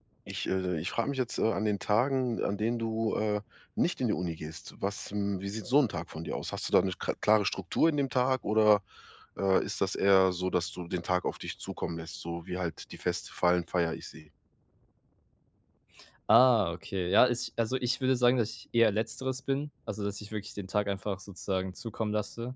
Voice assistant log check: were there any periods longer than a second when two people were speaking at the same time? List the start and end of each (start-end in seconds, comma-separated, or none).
none